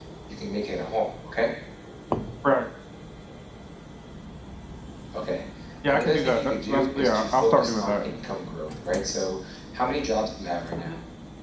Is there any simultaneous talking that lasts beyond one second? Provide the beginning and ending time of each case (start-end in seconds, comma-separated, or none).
5.9-8.0